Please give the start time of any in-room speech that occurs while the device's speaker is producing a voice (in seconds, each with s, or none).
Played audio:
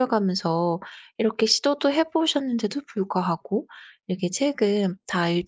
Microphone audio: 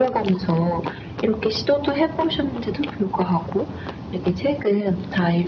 none